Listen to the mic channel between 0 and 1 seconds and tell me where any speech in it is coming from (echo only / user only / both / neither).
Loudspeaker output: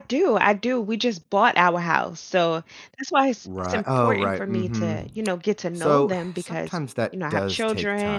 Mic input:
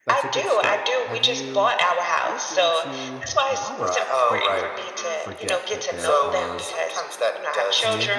both